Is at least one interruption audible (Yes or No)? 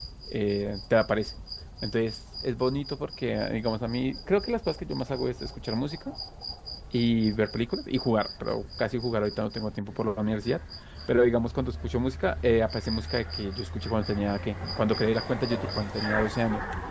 No